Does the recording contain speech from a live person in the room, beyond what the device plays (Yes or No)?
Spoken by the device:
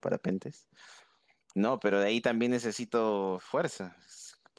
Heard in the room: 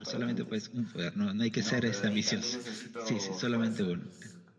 Yes